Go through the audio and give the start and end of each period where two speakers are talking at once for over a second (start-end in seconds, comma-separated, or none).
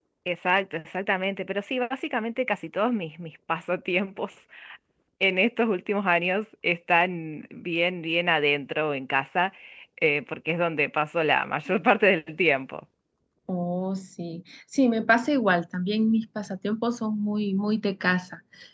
none